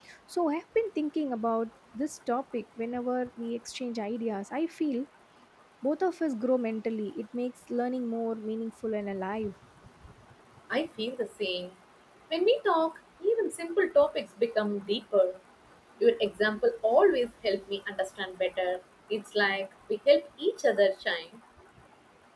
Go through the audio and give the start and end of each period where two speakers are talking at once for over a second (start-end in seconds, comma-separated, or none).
none